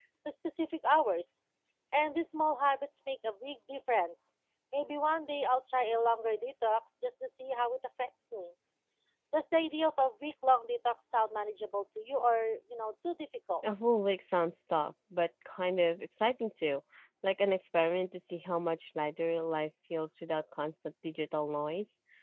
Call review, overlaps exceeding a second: none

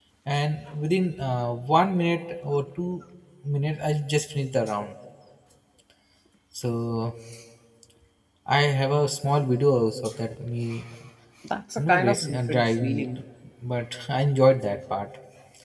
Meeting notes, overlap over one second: present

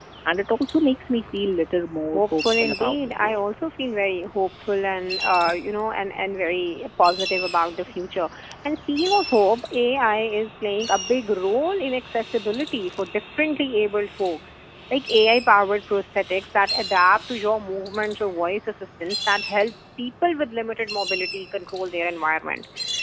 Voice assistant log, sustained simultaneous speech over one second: present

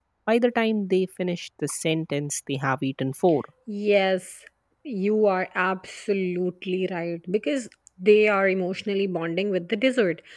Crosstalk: none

